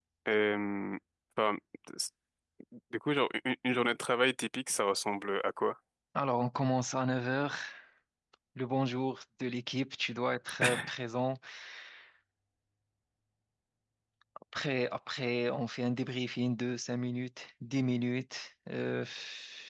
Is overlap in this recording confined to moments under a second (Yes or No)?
Yes